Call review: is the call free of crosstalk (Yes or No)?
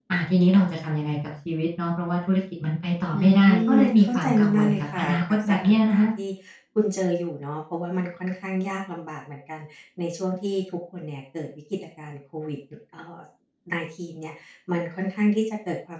No